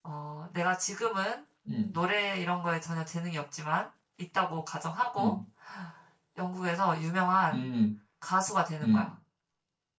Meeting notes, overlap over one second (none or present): none